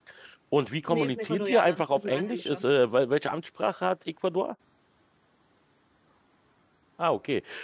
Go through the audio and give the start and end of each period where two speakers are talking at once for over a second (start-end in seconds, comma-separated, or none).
0.8-2.6